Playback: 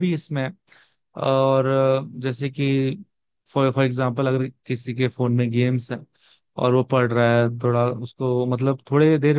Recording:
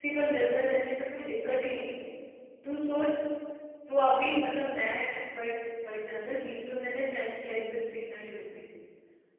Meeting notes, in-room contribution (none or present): present